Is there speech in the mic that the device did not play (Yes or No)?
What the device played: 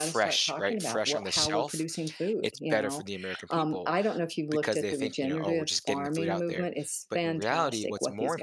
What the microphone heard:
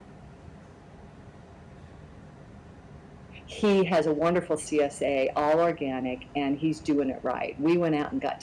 Yes